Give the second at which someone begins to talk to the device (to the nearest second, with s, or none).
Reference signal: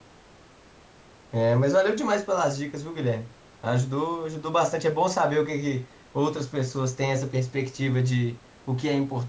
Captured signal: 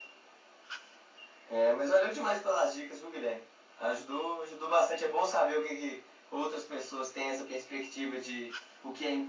none